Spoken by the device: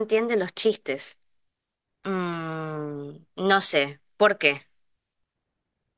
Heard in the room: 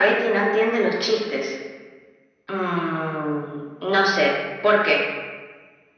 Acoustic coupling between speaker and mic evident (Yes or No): Yes